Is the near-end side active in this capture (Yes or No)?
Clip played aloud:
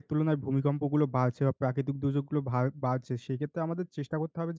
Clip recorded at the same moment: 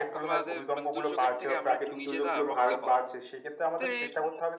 Yes